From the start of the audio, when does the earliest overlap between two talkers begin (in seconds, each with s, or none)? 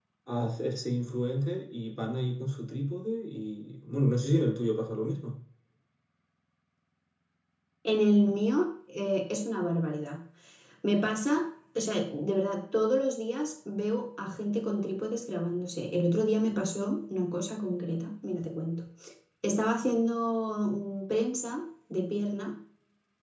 none